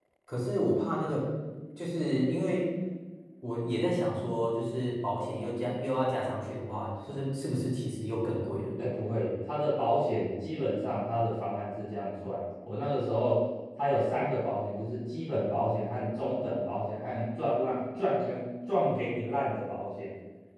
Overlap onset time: none

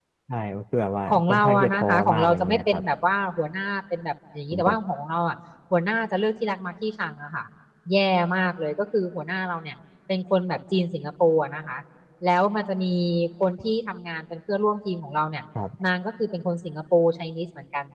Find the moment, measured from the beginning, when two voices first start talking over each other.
1.1 s

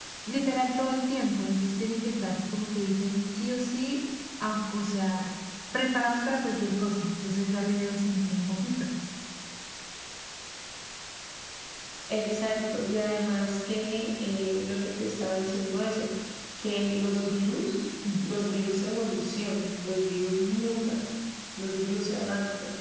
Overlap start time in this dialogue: none

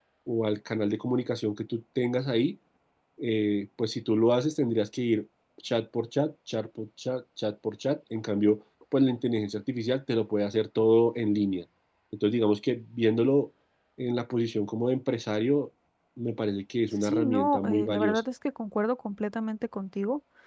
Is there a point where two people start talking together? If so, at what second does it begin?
17.0 s

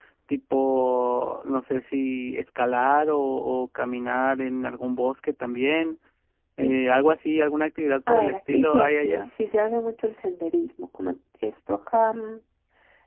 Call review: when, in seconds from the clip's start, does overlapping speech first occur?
8.1 s

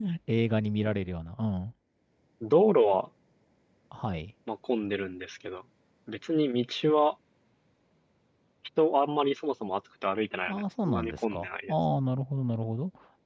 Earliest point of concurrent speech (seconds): 10.5 s

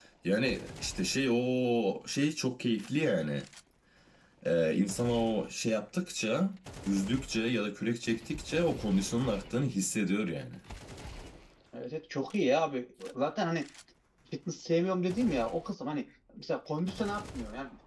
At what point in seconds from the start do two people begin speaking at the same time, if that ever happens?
none

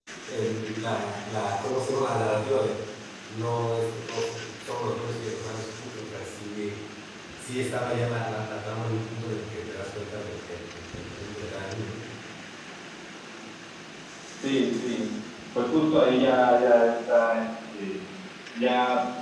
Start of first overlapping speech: none

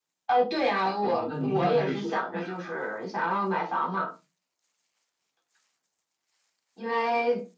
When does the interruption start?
1.0 s

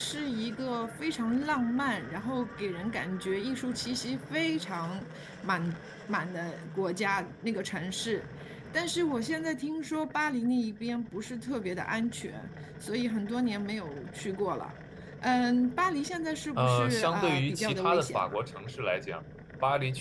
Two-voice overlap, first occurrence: 16.6 s

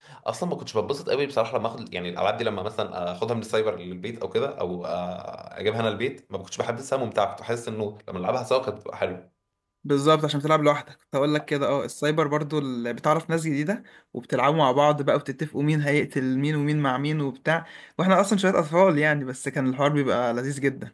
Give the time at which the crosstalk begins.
none

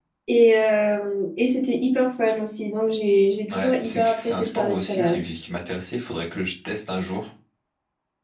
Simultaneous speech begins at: 3.5 s

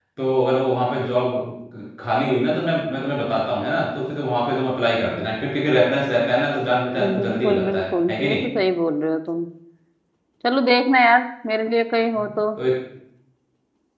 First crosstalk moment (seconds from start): 7.0 s

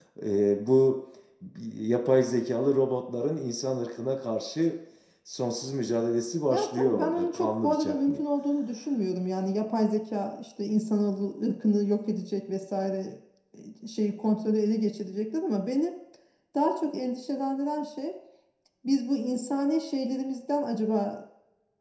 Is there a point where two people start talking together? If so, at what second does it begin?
6.5 s

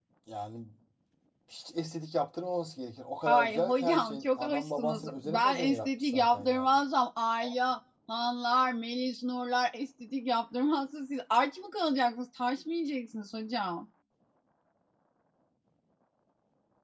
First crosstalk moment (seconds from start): 3.2 s

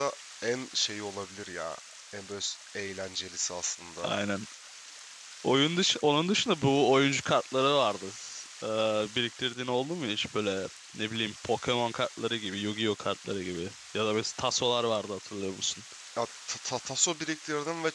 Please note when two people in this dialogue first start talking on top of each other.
none

